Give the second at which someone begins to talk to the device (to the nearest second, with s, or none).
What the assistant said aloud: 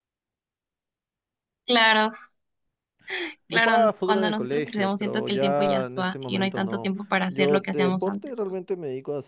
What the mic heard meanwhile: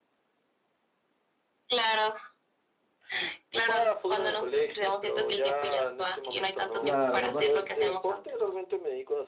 7 s